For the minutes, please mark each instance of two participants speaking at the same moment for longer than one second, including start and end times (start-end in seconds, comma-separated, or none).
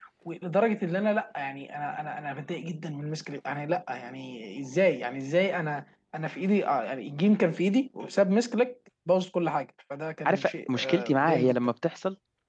10.2-11.7